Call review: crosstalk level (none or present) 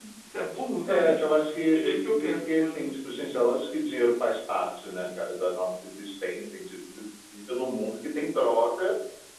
present